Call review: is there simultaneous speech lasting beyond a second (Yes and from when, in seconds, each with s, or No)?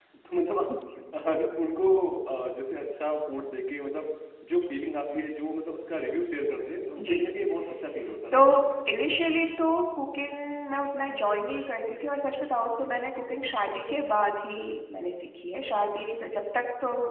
No